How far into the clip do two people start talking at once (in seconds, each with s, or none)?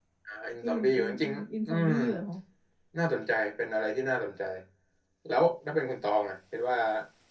0.6 s